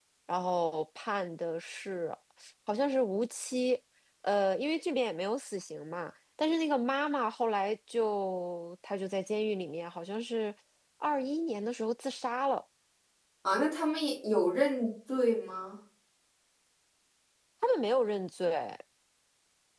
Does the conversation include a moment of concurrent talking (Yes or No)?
No